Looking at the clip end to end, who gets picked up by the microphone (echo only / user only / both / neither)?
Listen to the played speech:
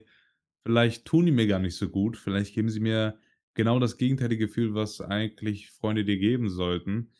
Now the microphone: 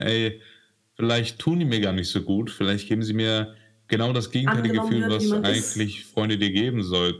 both